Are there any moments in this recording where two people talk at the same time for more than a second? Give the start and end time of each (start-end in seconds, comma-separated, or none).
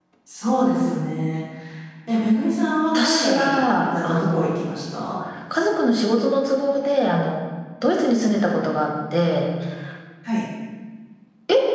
2.9-4.5